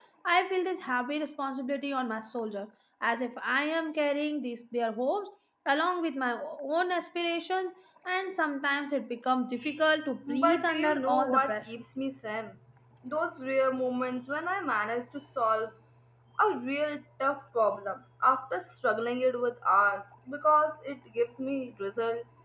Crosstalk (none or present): present